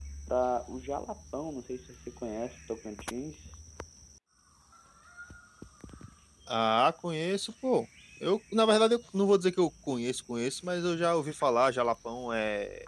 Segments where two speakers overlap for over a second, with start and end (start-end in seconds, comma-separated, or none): none